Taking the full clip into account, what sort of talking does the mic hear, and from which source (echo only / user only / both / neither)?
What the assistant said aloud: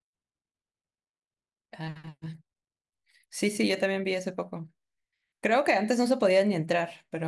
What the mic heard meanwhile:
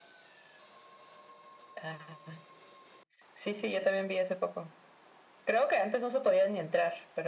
echo only